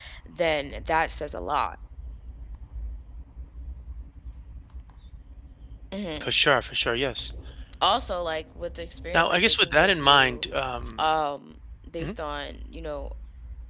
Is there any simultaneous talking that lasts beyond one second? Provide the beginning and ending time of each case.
9.1-10.4

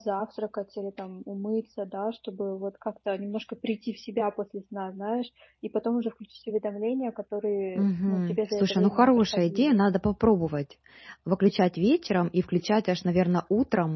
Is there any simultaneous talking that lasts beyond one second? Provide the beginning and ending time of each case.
7.8-9.8

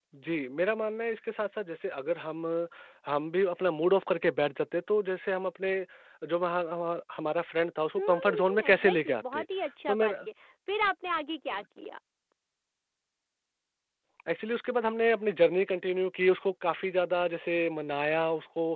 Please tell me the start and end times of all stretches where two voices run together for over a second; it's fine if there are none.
8.0-9.4

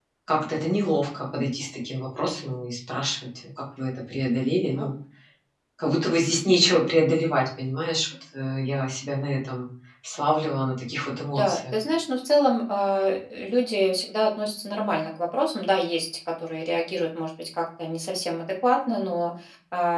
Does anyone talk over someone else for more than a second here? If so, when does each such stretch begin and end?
none

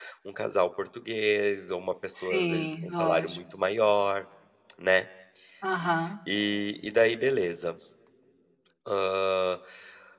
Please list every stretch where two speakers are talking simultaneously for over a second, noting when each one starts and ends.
2.1-3.4

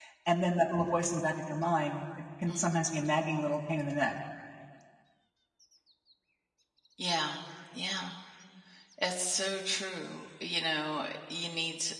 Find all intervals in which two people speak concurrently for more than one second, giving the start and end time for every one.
none

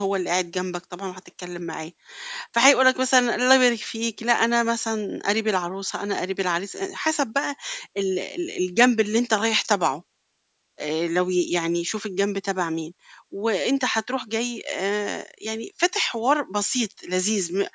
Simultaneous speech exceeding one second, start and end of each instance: none

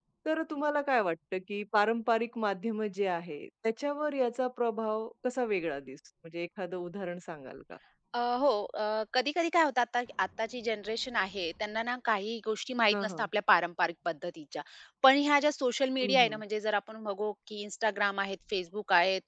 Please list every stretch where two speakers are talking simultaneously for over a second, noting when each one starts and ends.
none

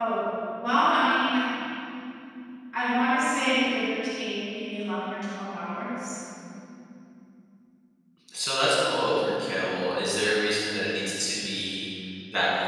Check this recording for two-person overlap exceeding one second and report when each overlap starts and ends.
none

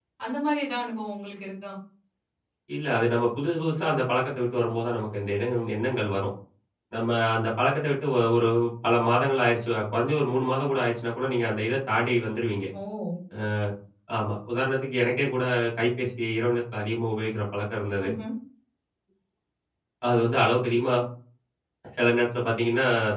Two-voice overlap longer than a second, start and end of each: none

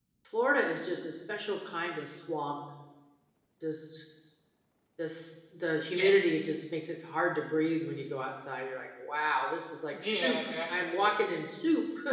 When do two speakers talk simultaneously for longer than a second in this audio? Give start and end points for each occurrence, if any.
9.9-11.2

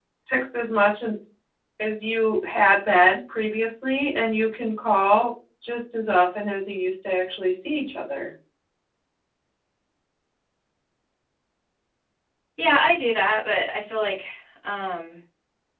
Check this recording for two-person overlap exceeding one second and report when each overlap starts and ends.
none

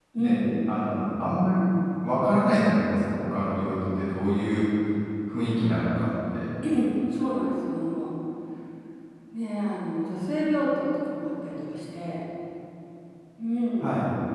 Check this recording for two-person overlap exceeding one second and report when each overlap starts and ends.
none

